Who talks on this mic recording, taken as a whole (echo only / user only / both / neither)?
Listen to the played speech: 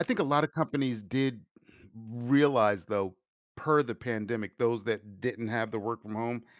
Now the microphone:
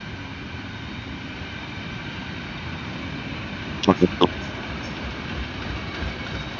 user only